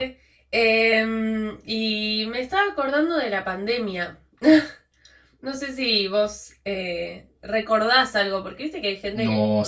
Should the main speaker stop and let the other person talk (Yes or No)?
Yes